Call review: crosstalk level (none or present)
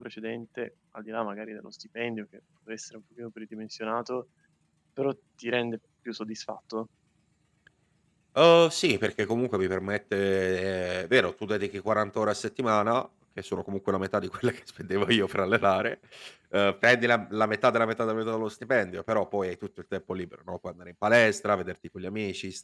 none